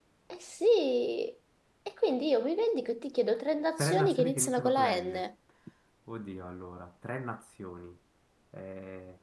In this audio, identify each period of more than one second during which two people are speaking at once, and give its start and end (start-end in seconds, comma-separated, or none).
3.8-5.2